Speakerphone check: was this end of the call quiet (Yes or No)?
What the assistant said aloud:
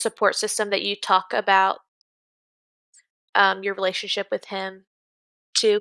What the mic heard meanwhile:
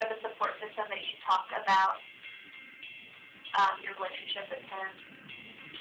Yes